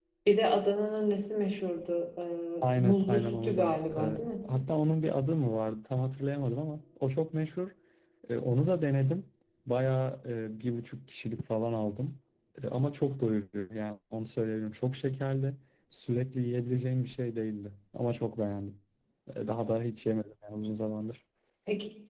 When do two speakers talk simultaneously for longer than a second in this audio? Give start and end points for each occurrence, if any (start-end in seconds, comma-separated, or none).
2.6-4.3